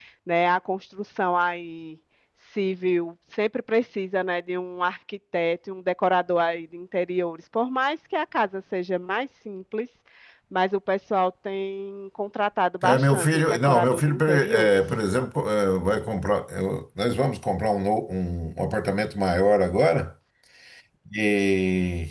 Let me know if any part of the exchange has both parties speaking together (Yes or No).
Yes